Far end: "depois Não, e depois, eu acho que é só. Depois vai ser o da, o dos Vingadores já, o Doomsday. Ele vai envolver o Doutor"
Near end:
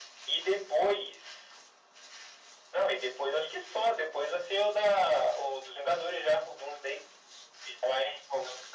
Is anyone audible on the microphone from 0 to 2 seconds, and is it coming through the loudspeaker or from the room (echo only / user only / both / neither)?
echo only